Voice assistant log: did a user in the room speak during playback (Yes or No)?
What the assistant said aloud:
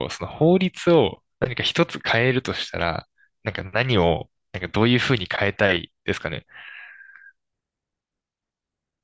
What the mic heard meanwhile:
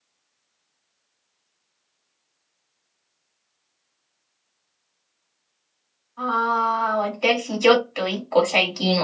Yes